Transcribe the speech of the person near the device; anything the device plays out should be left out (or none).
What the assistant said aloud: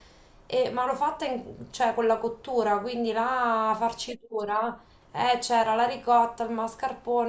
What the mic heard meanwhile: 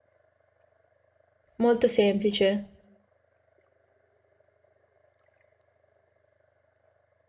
molto semplice.